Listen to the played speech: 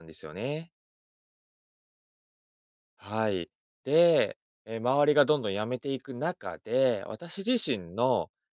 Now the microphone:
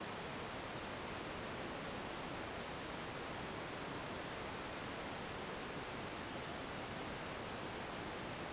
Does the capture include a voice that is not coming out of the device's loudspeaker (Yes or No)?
No